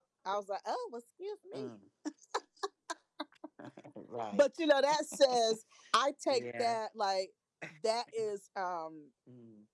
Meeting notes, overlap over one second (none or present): none